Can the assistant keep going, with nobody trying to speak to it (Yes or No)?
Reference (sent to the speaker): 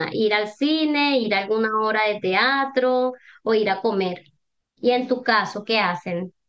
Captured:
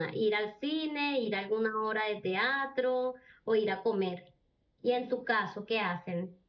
Yes